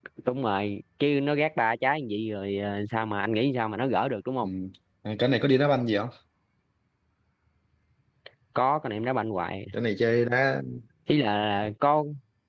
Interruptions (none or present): none